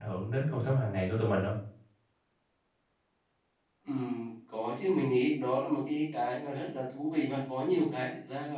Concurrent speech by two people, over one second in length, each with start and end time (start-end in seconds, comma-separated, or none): none